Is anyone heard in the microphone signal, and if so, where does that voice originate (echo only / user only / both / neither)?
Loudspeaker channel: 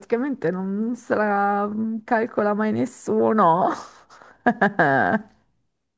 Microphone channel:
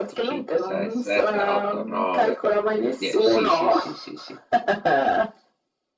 both